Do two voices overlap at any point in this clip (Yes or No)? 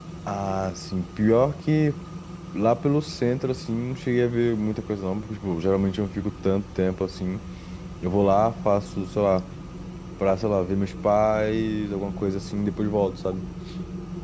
No